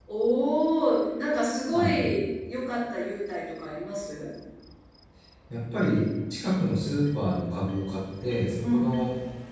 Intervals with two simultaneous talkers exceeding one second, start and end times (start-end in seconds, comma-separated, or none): none